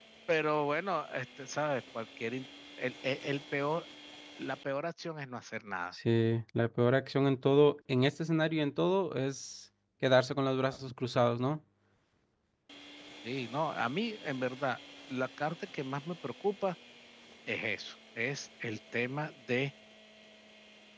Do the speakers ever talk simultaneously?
No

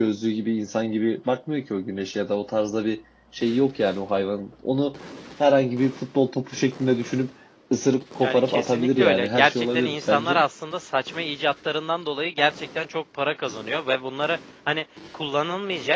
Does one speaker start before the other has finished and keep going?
Yes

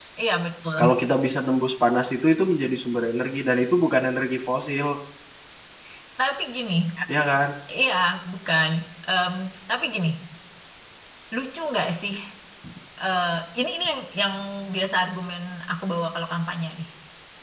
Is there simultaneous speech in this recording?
No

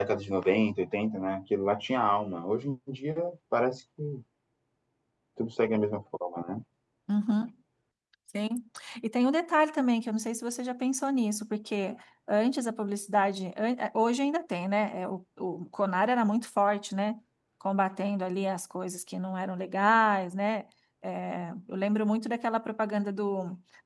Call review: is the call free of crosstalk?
Yes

